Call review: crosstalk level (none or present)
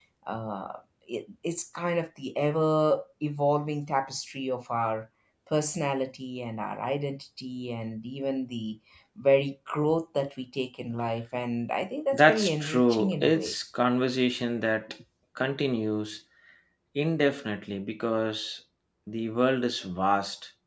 present